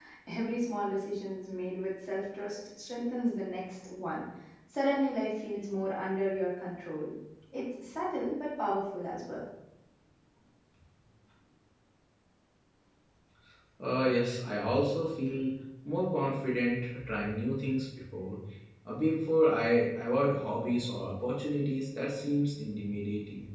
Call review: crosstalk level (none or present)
none